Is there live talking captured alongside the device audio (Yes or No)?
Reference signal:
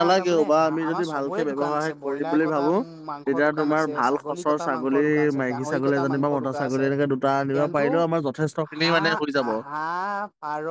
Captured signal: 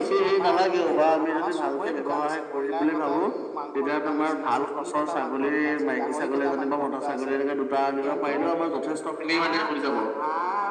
No